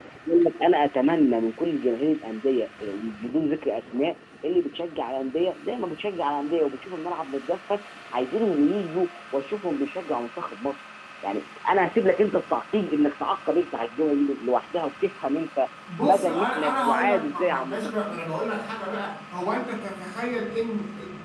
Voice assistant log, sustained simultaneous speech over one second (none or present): present